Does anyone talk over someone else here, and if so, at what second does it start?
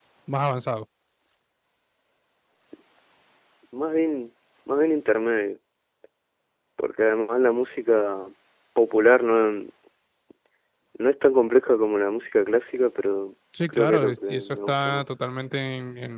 13.5 s

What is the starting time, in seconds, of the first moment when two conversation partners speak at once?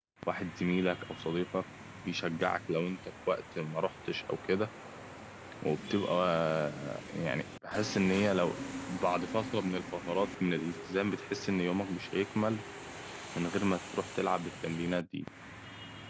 none

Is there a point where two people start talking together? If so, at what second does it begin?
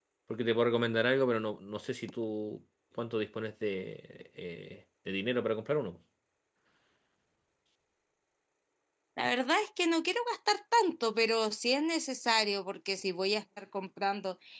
none

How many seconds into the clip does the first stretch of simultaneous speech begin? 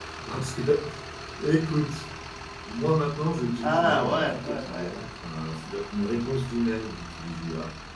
3.6 s

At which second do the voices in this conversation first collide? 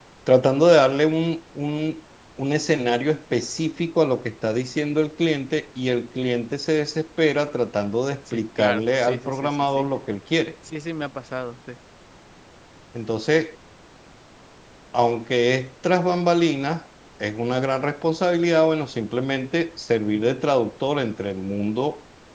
8.3 s

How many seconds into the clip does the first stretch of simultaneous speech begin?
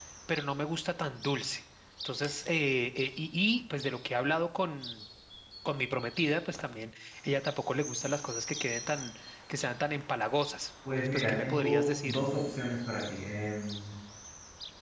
10.8 s

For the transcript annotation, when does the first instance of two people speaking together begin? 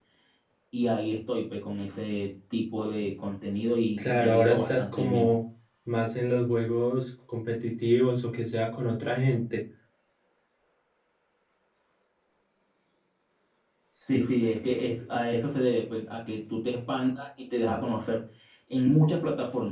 4.0 s

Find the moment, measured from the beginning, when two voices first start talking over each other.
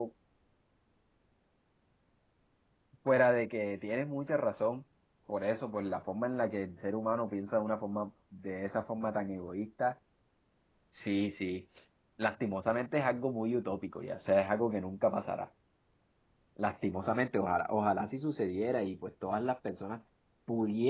none

